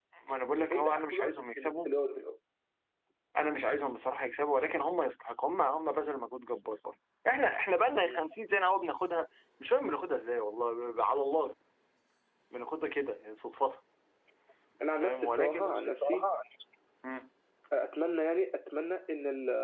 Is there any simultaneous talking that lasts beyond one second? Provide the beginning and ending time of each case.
0.6-1.9, 15.0-16.3

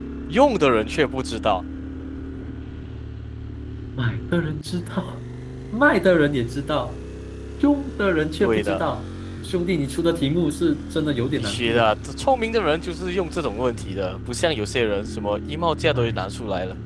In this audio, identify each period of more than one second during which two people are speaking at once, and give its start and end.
none

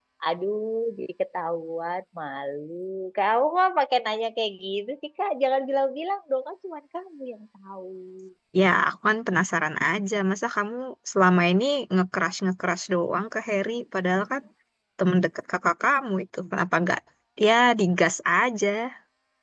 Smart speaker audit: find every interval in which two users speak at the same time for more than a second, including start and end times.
none

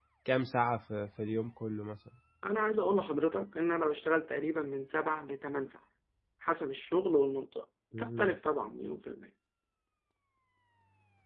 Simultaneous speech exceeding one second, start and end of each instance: none

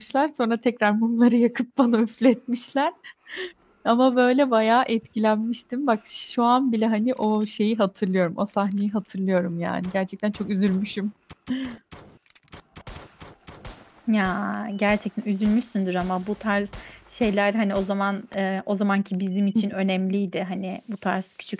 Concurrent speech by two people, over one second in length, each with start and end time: none

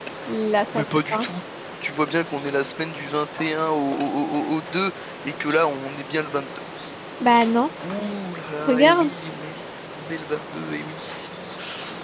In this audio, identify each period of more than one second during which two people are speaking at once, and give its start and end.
none

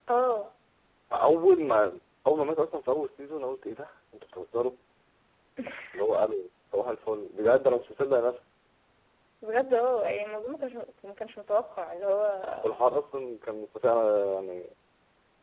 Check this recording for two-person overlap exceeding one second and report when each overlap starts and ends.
none

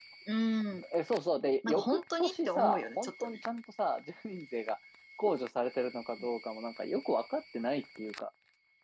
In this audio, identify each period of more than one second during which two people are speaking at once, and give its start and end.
1.6-3.4

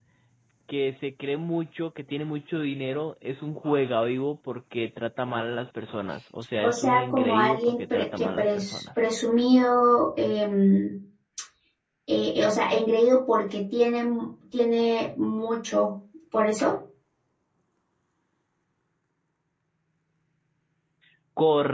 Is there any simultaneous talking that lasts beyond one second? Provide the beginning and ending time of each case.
6.6-8.8

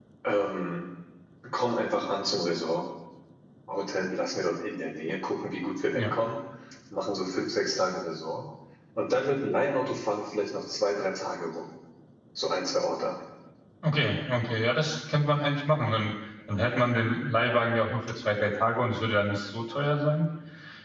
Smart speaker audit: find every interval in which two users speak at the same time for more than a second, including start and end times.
none

